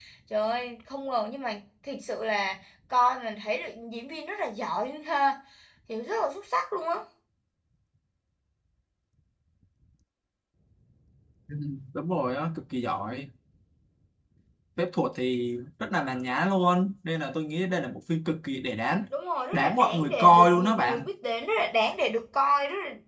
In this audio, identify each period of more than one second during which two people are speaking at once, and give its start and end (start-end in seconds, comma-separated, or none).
19.5-21.1